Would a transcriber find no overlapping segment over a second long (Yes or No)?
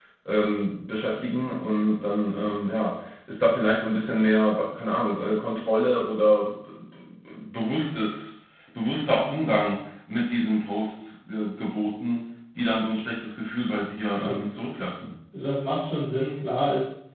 Yes